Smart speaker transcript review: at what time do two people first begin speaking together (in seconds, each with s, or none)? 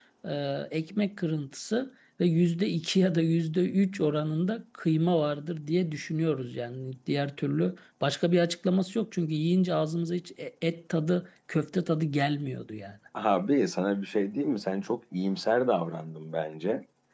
none